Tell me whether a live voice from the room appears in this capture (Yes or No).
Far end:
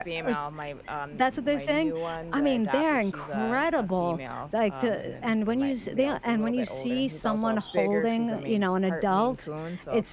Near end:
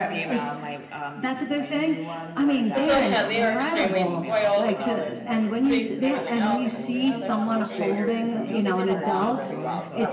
Yes